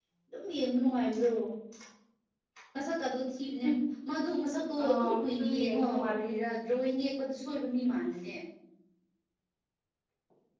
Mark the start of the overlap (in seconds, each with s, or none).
4.8 s